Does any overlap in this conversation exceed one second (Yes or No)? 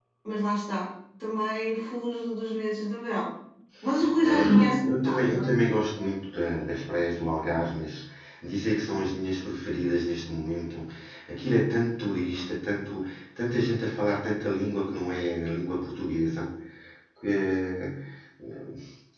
Yes